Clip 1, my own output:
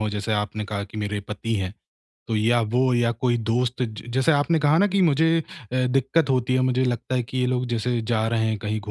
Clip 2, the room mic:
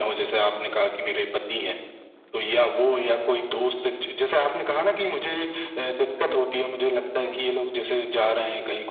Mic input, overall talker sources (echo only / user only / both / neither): both